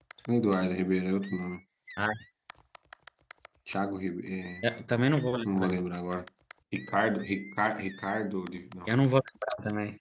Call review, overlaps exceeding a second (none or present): none